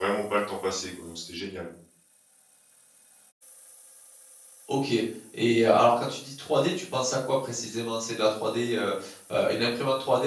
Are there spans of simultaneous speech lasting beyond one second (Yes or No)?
No